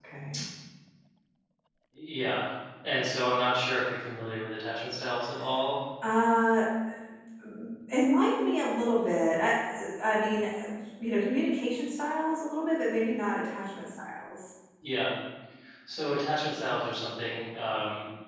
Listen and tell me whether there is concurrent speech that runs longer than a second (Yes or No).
No